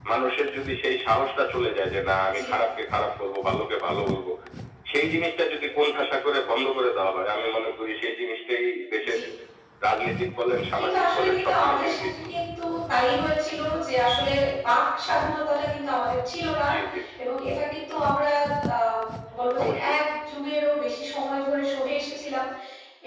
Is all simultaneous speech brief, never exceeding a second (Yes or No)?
No